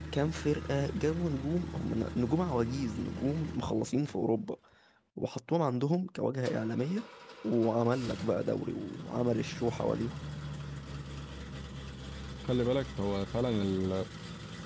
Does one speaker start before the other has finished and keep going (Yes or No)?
No